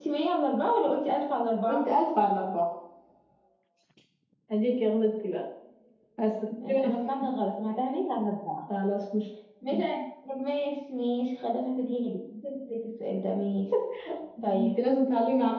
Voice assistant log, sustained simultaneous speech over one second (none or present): none